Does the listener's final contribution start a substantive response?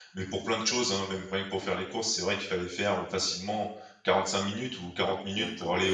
Yes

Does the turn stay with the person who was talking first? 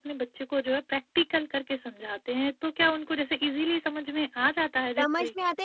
No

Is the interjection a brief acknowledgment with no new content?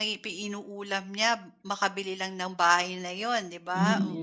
No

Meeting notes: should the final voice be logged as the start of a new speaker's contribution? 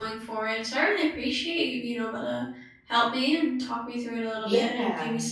No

